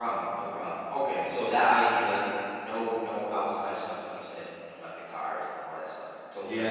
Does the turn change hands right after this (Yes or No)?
Yes